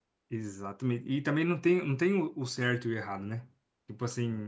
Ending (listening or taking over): listening